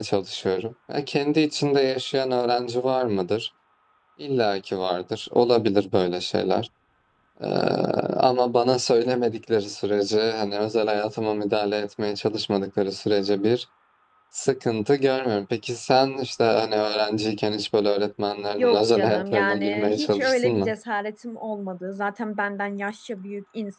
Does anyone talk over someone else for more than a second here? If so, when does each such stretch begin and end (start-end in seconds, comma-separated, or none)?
18.6-20.7